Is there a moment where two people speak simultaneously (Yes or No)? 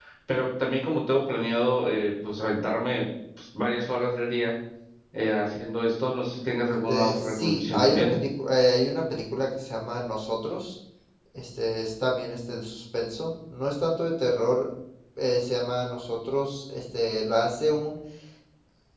Yes